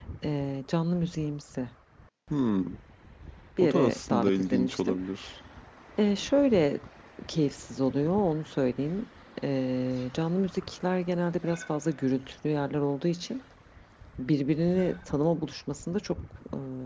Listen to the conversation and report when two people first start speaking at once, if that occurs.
3.6 s

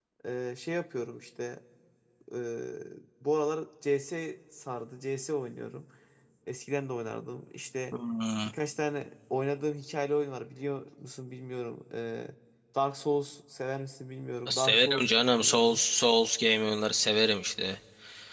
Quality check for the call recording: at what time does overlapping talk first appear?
14.5 s

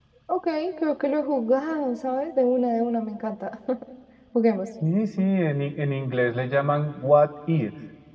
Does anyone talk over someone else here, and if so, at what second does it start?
none

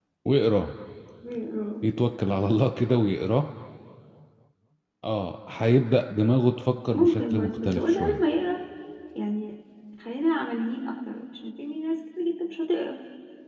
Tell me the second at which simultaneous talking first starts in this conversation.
6.9 s

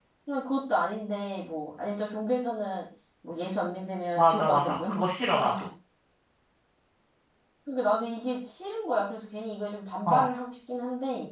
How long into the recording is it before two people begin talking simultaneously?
4.2 s

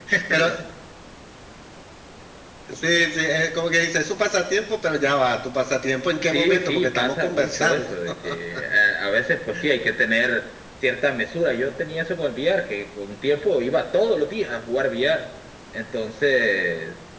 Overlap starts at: 6.3 s

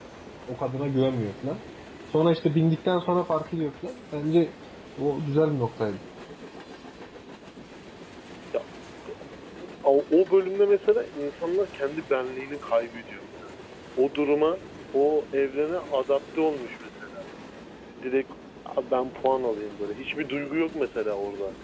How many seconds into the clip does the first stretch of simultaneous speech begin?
none

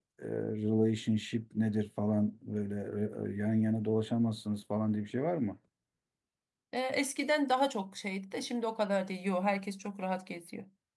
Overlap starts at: none

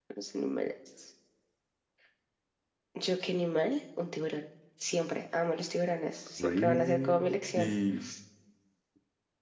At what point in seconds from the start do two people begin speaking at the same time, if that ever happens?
6.4 s

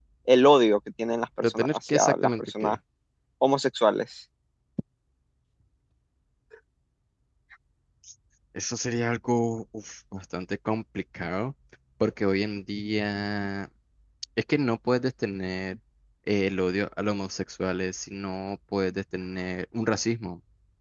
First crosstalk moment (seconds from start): 1.4 s

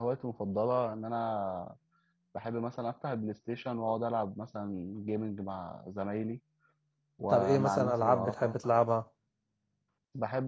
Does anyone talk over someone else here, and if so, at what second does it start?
7.3 s

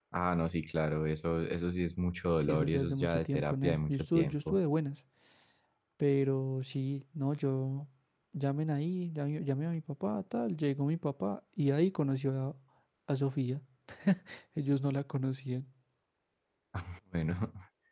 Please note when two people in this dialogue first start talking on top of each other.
2.5 s

